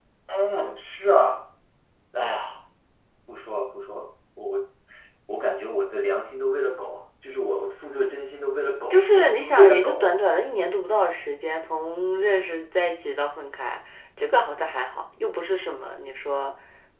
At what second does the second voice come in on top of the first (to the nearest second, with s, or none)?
9 s